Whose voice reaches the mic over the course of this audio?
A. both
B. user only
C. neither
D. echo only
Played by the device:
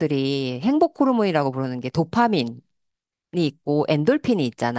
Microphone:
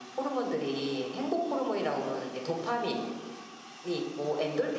D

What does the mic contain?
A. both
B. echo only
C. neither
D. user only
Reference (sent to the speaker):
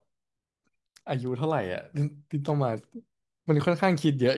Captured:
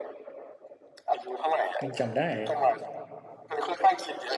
A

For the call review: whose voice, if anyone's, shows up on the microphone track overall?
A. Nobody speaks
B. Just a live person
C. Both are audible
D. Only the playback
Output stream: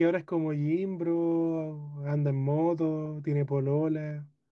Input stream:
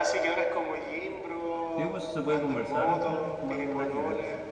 C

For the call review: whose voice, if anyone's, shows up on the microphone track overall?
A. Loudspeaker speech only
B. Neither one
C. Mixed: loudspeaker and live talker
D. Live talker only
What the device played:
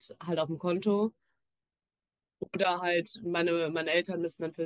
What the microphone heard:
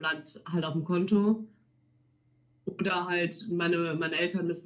A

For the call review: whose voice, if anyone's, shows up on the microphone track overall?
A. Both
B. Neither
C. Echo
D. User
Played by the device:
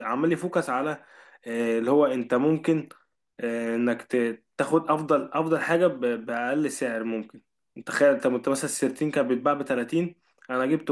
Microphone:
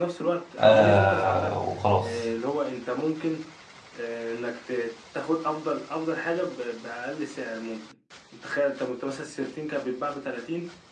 A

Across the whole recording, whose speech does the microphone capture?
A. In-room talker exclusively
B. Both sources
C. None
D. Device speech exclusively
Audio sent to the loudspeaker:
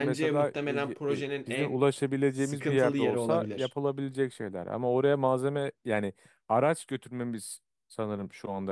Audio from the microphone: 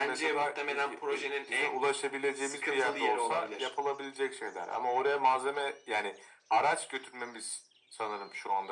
D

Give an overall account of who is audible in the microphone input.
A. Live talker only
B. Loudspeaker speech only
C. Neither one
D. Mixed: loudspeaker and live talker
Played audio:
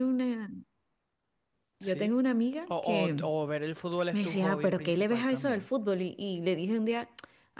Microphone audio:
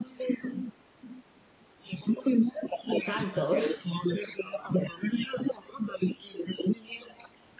D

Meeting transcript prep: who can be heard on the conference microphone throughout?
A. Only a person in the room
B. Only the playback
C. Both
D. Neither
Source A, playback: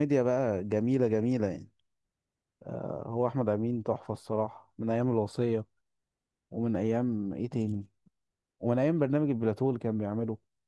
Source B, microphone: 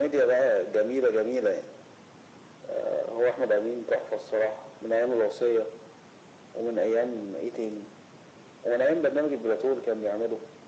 B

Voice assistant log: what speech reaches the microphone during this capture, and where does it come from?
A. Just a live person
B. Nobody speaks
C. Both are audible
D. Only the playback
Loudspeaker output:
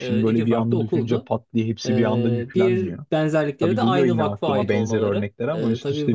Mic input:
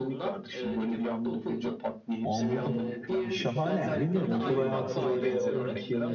C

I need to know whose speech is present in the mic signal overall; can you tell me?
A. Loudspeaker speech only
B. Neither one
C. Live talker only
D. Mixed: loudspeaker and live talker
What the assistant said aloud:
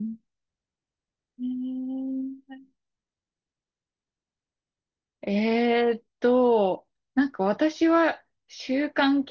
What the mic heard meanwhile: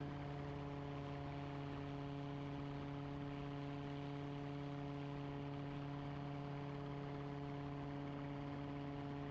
B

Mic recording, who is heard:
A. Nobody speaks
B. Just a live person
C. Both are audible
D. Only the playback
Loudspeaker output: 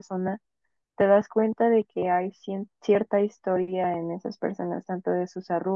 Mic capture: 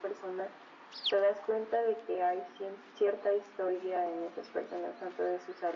D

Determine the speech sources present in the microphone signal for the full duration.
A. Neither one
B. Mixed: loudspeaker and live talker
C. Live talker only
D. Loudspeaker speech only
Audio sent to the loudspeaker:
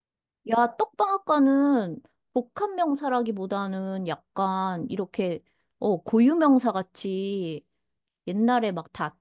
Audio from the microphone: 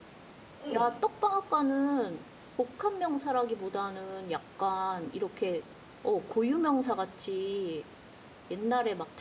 B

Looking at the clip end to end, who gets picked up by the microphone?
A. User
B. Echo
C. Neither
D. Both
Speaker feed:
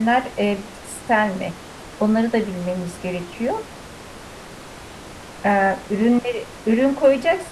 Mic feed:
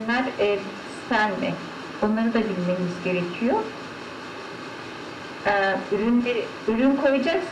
B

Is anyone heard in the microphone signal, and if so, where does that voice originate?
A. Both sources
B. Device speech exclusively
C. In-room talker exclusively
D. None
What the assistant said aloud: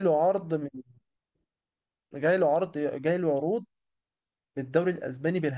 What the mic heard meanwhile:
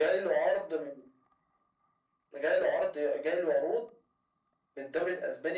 B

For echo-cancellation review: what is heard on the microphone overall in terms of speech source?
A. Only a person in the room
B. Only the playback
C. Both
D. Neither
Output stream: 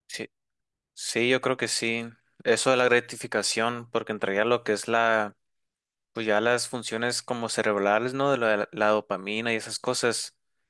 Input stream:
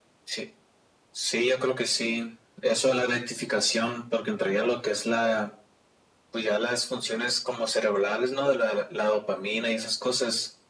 B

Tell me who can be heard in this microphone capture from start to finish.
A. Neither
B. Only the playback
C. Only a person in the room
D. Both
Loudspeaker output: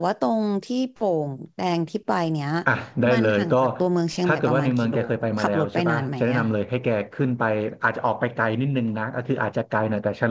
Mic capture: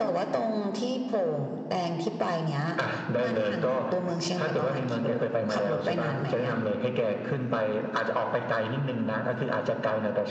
B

